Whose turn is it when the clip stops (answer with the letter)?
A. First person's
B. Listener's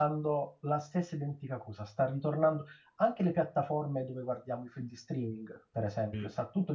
A